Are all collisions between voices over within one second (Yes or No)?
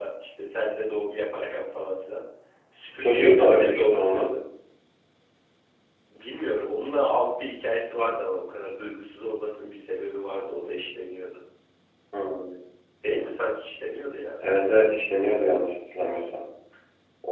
No